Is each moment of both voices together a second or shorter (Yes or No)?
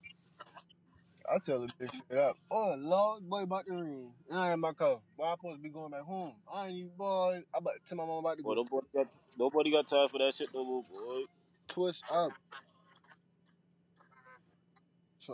Yes